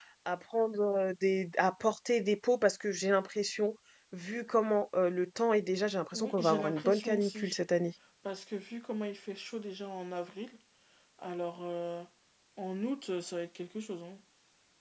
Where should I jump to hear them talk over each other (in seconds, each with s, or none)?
6.1 s